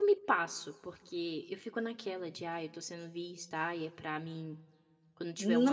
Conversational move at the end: taking over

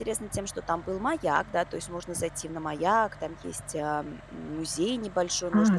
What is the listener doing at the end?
taking over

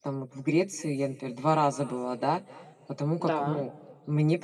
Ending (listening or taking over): listening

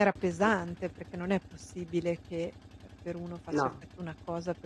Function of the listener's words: listening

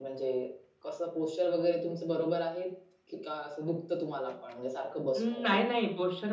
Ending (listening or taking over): taking over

